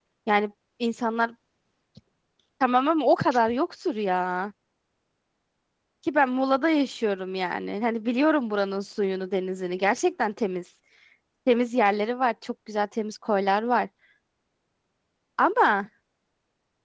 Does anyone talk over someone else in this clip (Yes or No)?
No